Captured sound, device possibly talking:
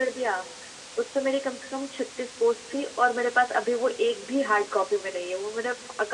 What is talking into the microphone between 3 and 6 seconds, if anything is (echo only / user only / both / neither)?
echo only